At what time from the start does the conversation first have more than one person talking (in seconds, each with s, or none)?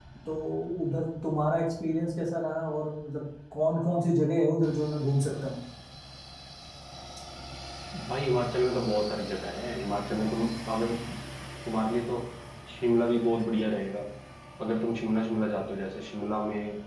none